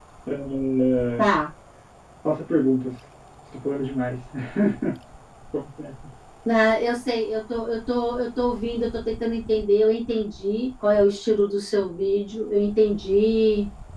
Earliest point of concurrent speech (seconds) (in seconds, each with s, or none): none